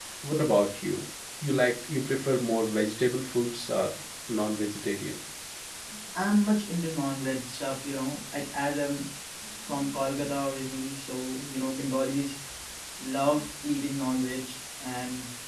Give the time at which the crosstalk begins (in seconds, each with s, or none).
none